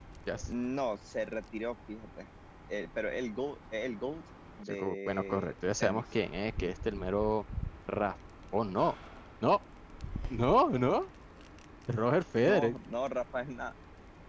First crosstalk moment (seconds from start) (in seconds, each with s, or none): 4.7 s